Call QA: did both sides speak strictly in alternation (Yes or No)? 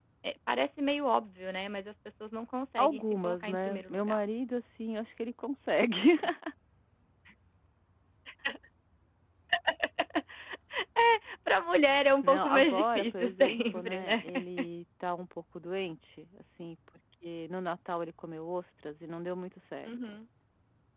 No